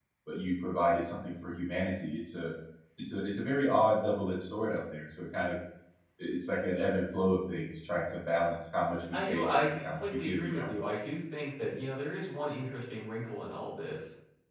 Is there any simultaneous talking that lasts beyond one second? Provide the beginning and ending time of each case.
9.1-10.6

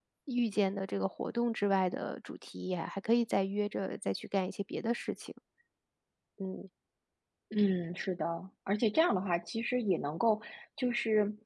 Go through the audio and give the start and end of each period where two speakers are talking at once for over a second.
none

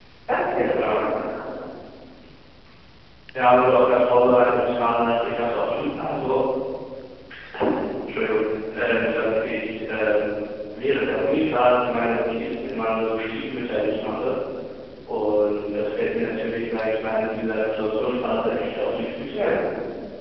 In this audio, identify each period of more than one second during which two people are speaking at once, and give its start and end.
none

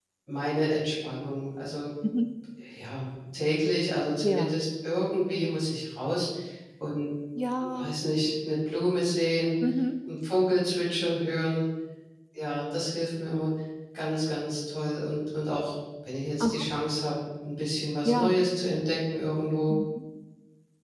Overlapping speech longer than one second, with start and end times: none

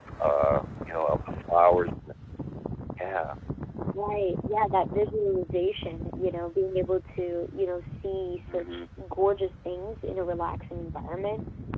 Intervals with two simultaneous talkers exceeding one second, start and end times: none

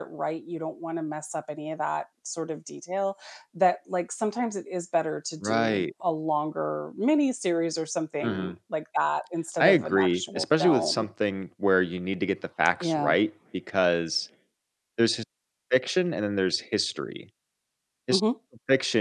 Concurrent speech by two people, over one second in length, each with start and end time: 9.6-11.1

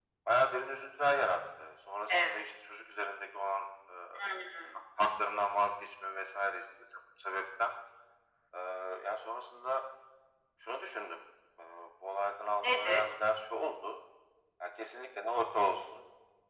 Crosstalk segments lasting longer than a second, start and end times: none

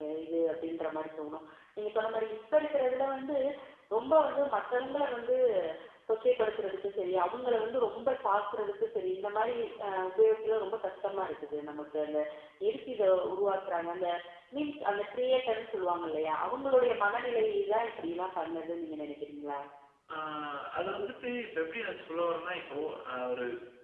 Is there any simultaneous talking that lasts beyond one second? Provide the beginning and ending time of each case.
none

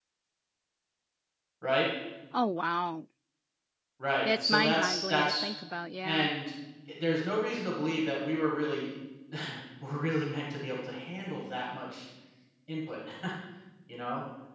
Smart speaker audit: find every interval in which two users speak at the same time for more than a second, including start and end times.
4.2-5.5

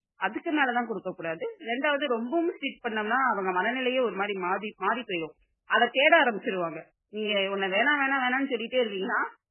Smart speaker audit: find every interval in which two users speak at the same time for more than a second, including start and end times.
none

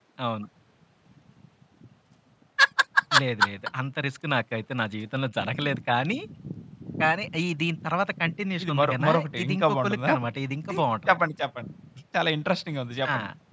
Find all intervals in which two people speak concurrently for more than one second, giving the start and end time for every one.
8.6-10.1

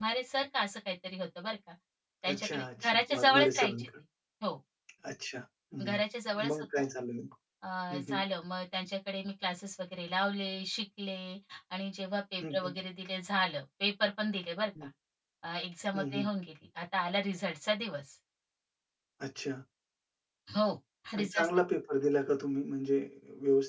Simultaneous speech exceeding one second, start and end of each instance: 2.3-3.9

